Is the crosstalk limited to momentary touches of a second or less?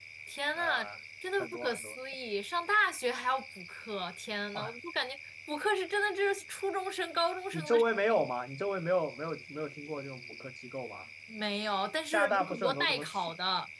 No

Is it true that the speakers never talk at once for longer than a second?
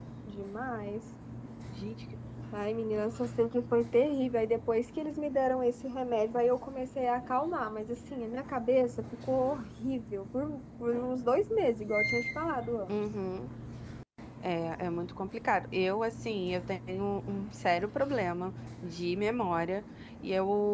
Yes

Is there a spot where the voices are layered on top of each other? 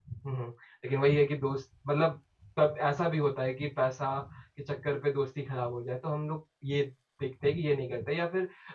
No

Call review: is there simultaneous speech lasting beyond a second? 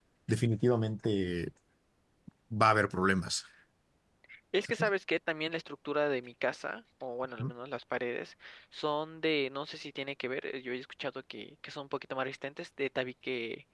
No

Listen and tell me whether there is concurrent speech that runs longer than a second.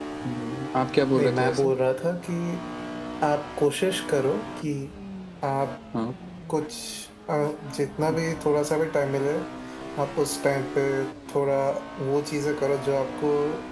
No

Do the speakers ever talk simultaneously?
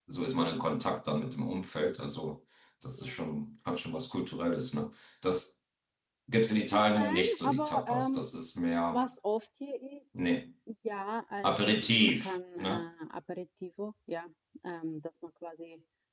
Yes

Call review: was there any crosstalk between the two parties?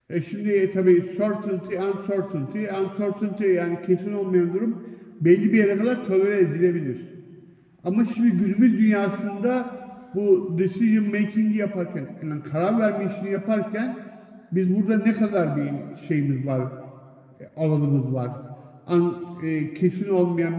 No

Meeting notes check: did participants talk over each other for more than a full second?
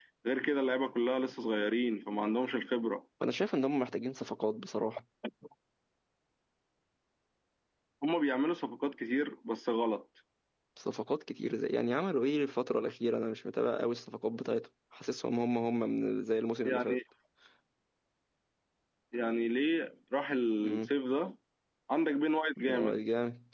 No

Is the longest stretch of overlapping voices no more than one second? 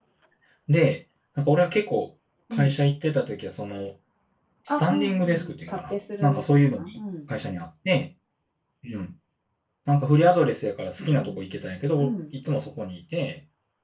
No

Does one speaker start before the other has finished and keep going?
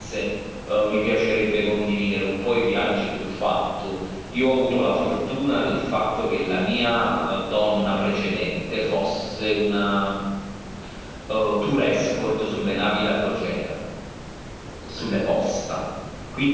No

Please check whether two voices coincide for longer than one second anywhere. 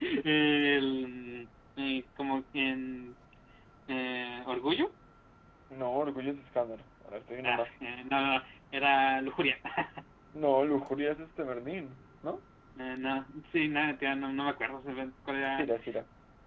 No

